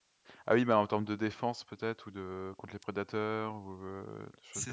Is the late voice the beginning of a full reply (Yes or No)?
Yes